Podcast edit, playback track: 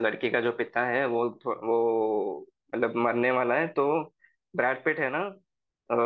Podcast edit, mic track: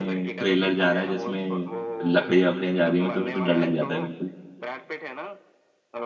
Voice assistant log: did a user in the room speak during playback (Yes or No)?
Yes